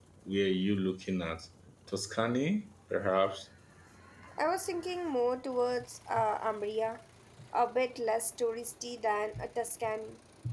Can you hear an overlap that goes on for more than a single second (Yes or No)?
No